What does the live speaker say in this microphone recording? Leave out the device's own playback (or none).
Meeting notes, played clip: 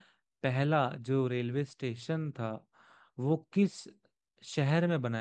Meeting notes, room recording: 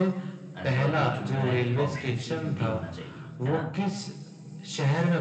अच्छा और तू चुन रहा है कि ऑप्शन सी हिंदी होना चाहिए है ना